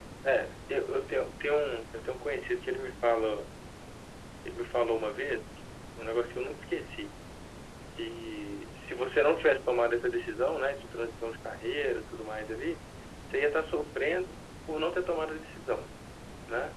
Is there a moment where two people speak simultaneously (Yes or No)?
No